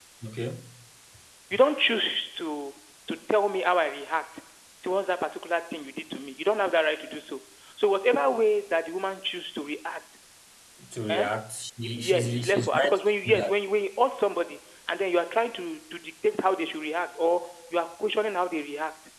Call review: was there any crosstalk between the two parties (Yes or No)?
Yes